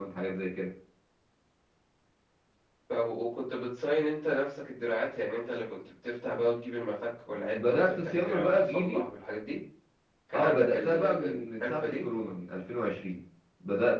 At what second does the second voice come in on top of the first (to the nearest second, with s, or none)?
8 s